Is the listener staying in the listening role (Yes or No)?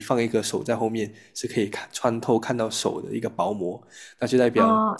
No